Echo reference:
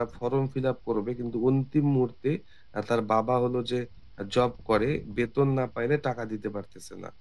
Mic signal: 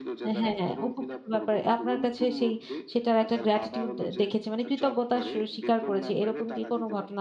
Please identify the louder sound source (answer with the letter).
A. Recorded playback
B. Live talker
B